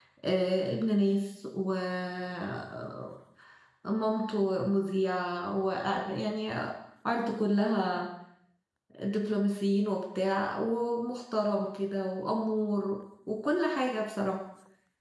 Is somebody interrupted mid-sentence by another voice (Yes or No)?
No